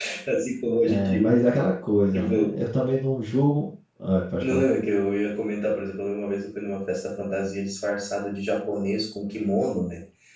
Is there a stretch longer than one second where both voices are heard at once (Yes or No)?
No